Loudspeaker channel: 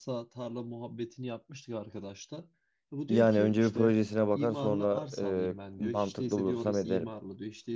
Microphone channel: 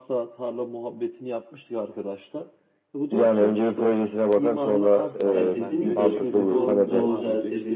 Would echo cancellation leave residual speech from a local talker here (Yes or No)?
Yes